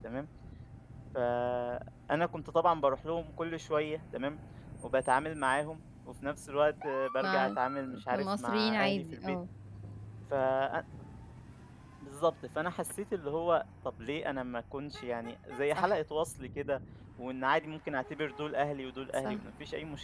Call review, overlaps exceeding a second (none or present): present